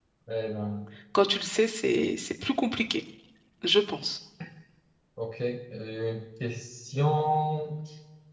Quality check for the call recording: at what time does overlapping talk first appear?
none

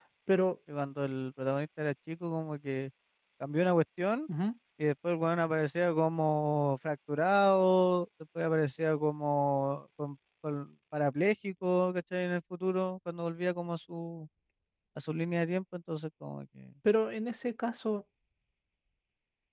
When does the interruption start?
none

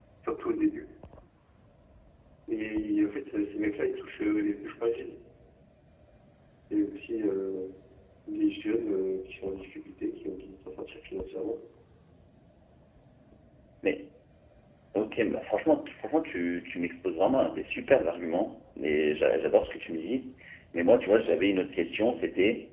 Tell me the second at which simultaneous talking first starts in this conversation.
none

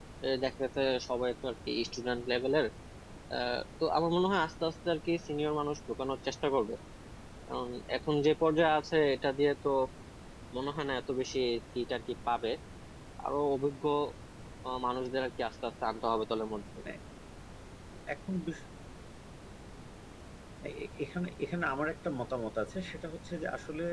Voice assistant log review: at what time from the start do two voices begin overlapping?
none

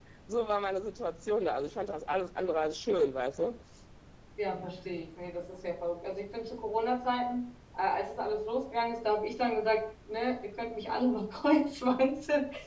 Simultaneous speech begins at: none

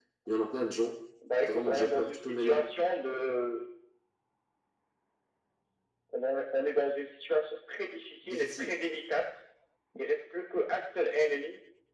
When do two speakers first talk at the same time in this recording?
1.4 s

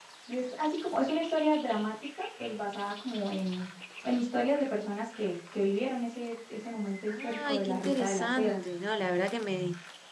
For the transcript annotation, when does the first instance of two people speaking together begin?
7.1 s

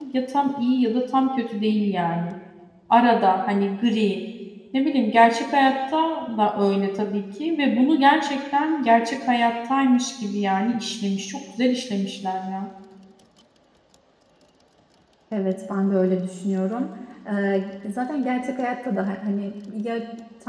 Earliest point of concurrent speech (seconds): none

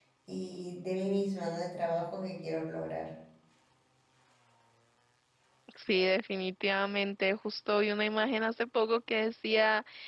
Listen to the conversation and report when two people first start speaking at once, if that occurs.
none

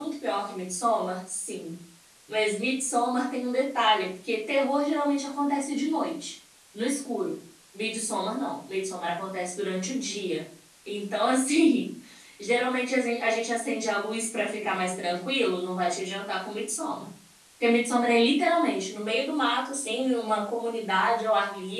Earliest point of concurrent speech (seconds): none

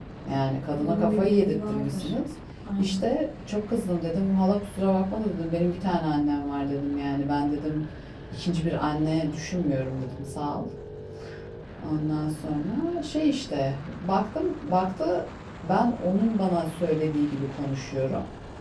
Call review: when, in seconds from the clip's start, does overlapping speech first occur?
0.8 s

